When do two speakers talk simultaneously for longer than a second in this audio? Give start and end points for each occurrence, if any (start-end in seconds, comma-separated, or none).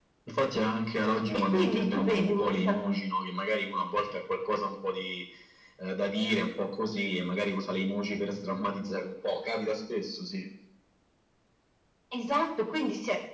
1.4-2.7